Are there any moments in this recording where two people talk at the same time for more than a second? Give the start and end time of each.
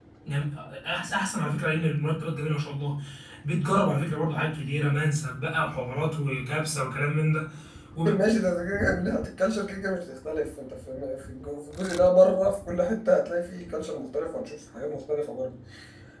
none

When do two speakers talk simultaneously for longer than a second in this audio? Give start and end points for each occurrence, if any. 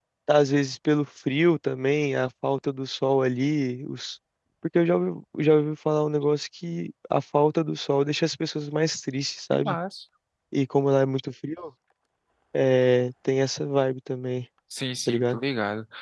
none

